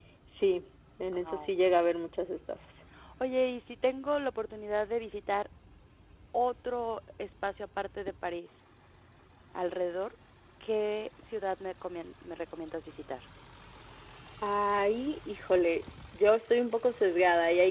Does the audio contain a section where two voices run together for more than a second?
No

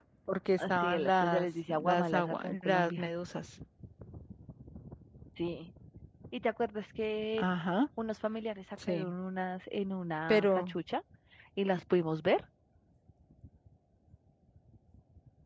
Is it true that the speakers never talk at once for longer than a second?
No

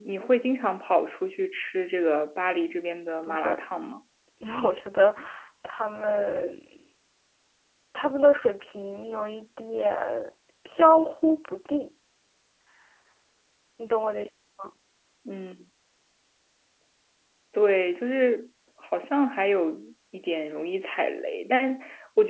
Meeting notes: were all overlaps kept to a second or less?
Yes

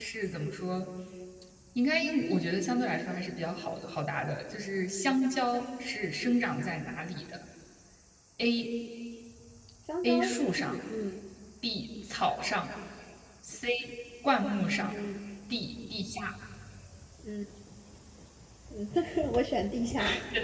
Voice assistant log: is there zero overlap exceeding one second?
Yes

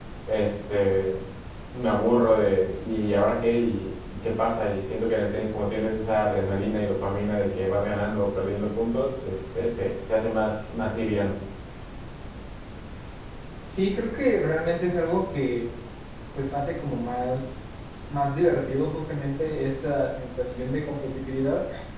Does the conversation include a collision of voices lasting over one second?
No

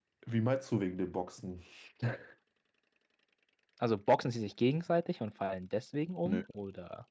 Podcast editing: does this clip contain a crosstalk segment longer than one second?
No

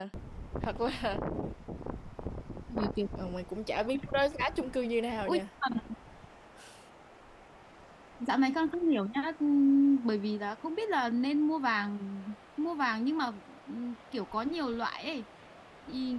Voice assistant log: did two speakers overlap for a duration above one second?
No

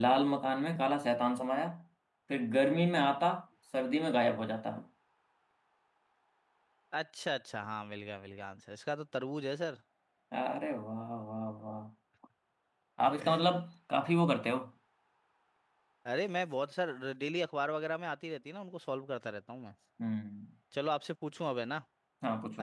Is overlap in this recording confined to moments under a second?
Yes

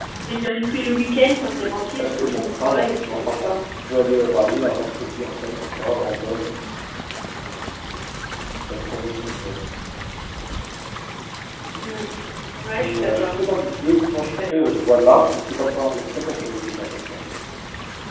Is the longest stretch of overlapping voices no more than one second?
No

